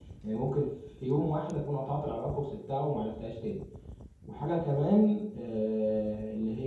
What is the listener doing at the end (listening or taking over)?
listening